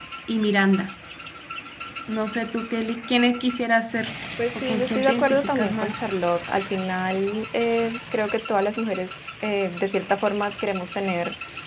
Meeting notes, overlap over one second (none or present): present